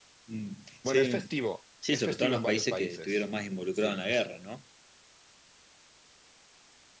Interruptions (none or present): present